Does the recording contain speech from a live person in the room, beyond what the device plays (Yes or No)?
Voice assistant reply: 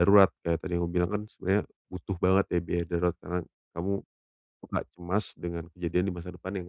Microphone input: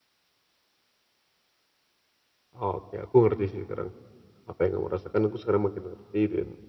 Yes